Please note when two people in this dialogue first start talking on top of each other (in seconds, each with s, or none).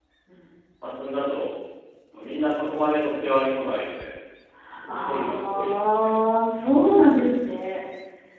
5.0 s